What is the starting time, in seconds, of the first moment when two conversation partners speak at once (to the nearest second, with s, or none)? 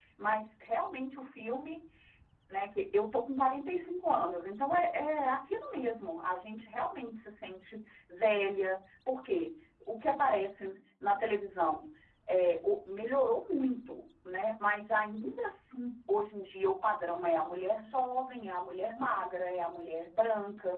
none